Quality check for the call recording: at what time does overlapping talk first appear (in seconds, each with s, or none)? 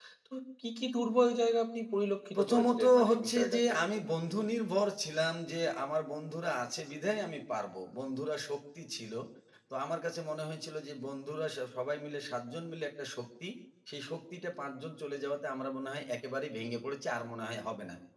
2.3 s